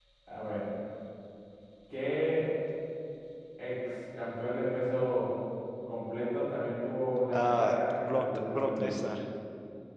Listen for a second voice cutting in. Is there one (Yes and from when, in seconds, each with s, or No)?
Yes, from 7.3 s